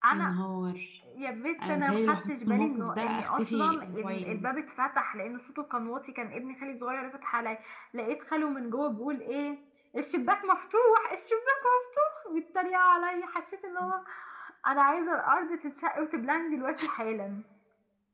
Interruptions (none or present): present